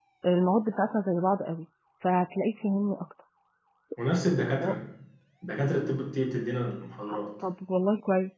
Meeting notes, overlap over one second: none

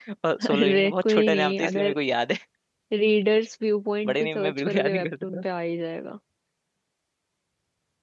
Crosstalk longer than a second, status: present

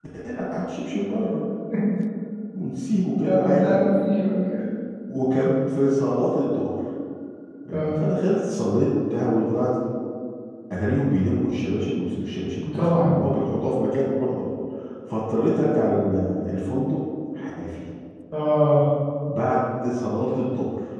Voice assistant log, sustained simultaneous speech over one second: none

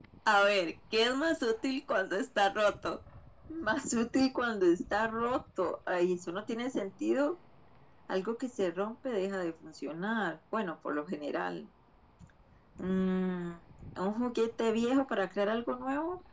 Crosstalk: none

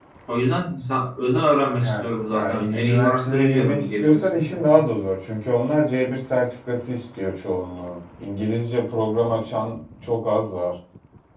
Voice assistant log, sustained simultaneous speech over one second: present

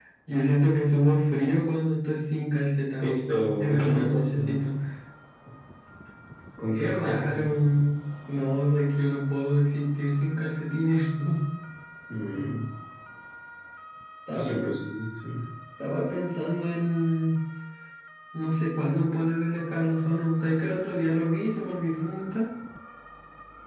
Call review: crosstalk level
present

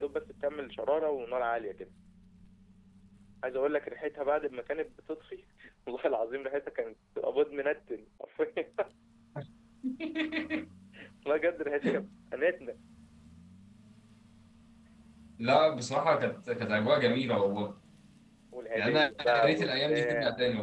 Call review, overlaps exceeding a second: present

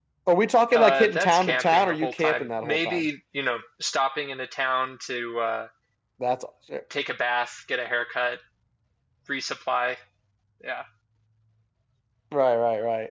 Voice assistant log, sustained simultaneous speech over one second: present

